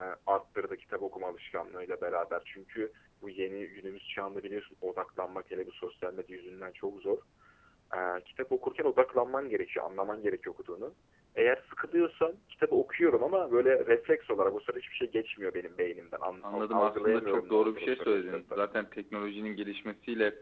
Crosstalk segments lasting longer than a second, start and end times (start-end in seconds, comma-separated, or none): 16.4-18.6